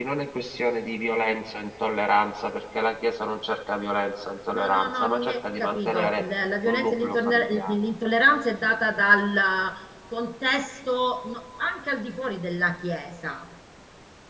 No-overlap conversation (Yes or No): No